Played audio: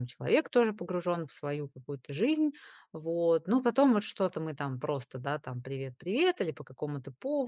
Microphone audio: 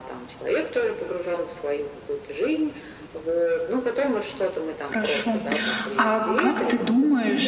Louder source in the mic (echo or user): user